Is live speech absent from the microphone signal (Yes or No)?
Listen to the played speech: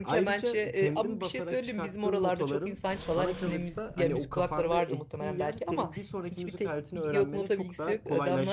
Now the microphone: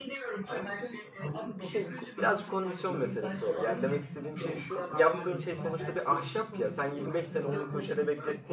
No